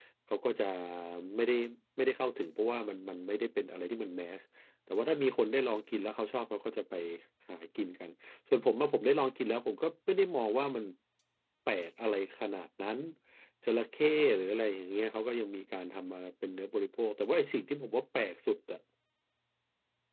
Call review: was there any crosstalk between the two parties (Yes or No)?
No